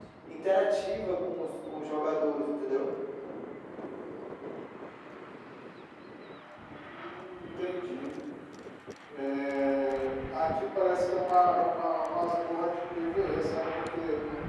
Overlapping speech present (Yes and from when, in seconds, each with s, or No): No